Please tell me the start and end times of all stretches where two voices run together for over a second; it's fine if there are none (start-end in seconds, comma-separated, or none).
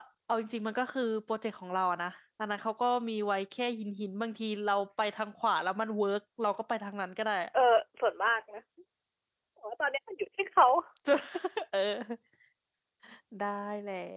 none